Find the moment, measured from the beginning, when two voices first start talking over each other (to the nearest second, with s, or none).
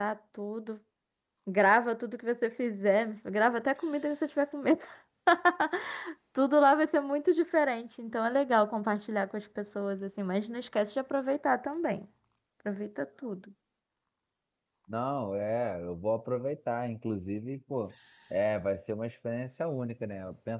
none